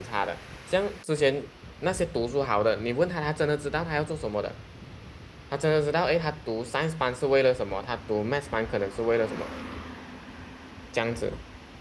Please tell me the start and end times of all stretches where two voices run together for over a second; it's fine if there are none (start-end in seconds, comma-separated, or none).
none